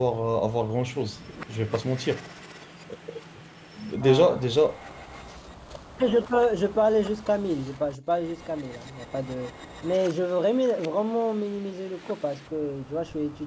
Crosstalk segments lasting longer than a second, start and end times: none

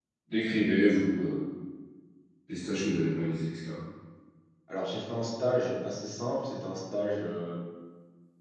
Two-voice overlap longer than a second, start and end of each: none

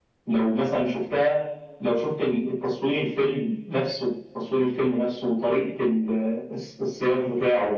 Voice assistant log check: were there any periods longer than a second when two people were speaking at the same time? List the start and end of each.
none

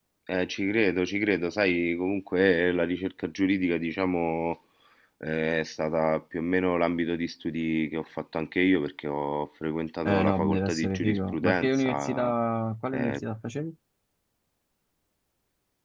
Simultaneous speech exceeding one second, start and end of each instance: 10.1-12.3

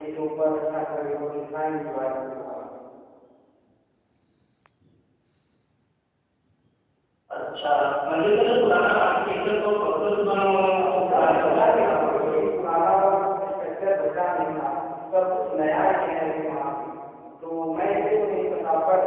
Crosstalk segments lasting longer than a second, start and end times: 10.8-12.3

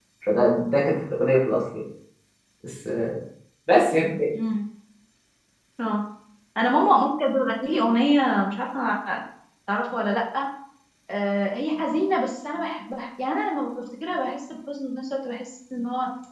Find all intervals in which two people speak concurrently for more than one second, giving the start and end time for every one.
none

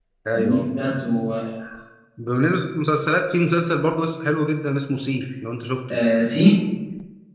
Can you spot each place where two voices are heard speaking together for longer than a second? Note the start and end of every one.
none

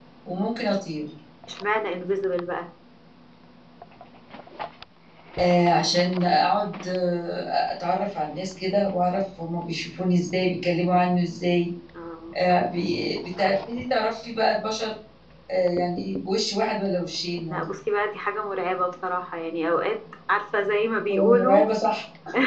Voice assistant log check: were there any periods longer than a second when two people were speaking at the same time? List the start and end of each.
none

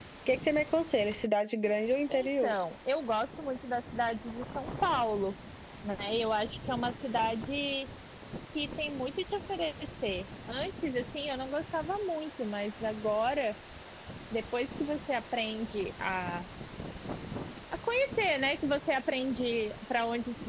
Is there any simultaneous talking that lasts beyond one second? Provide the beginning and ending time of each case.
none

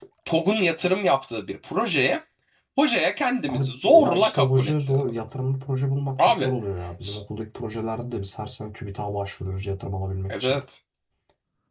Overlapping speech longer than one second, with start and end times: 3.5-5.1

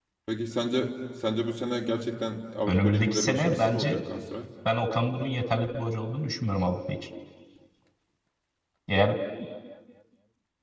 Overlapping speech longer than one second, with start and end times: 2.7-4.0

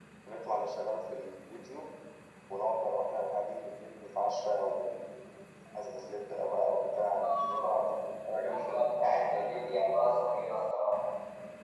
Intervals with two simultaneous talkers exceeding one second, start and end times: 8.4-10.5

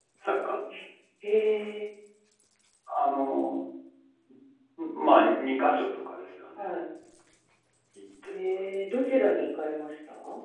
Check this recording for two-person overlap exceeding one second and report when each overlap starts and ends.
none

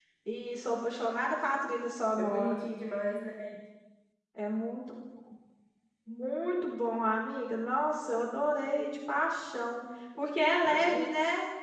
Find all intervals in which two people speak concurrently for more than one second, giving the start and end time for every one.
none

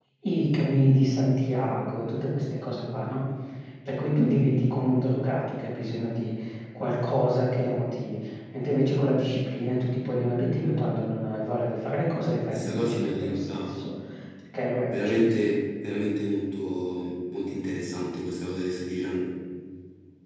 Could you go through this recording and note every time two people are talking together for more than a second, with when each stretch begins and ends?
12.5-13.8

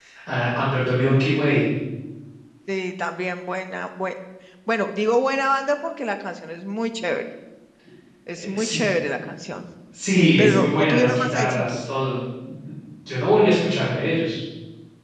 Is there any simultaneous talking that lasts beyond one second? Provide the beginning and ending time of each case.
10.1-11.8

